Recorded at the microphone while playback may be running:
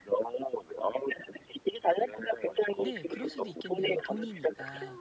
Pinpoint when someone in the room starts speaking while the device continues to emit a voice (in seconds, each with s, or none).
2.8 s